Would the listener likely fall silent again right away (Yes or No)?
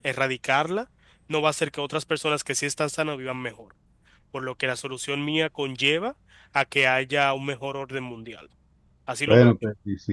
No